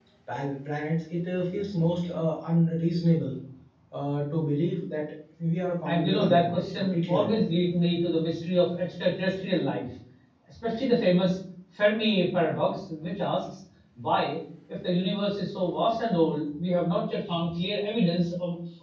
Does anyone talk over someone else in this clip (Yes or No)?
Yes